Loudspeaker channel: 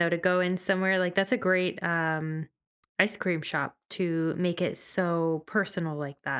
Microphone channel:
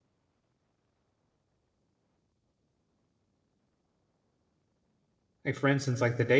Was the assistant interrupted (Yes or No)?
Yes